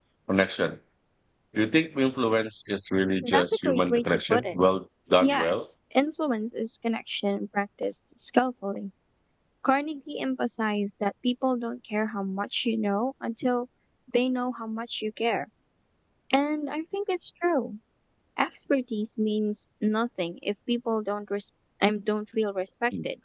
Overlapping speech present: Yes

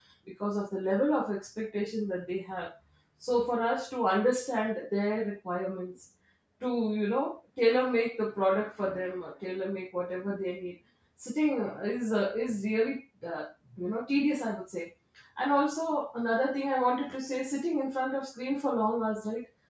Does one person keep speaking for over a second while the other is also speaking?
No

